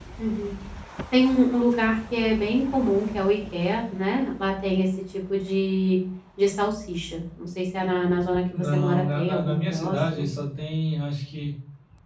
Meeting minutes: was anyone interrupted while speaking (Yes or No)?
Yes